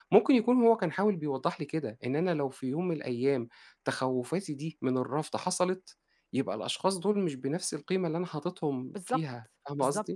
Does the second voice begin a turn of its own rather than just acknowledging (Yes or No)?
Yes